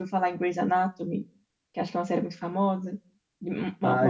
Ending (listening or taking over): taking over